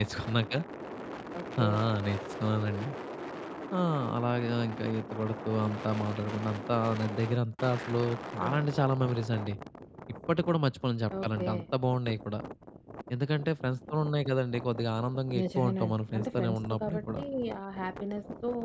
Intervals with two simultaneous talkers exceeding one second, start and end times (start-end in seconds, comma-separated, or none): 15.4-17.2